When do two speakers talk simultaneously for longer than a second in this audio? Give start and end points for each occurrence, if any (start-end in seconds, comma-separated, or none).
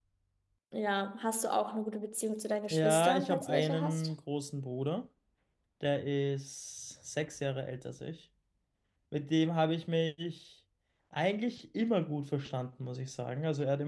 2.7-4.1